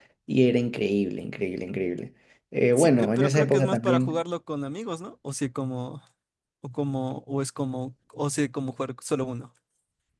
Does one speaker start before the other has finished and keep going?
Yes, from 2.8 s

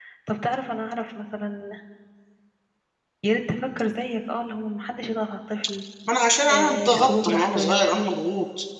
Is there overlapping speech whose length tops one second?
Yes, from 6.5 s

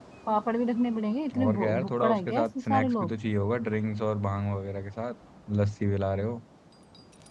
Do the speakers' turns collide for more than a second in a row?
Yes, from 1.3 s

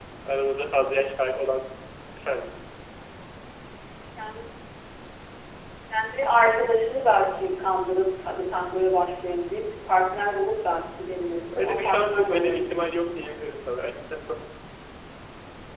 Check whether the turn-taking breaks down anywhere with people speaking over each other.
Yes, from 11.5 s

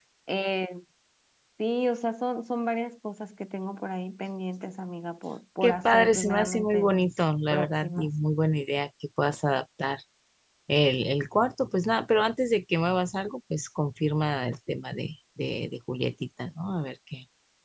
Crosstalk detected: Yes, from 5.6 s

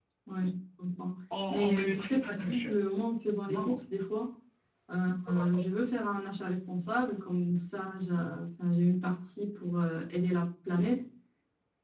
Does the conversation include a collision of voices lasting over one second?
Yes, from 1.5 s

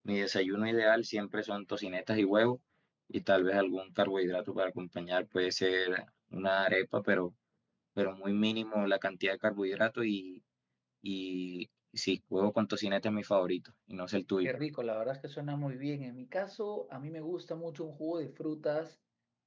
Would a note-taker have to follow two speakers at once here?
No

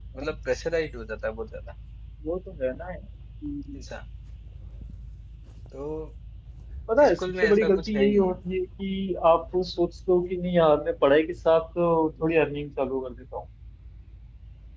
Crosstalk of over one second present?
Yes, from 7.1 s

